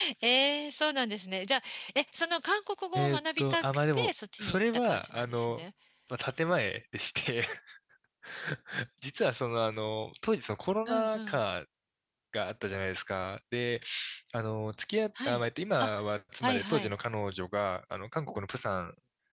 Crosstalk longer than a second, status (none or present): present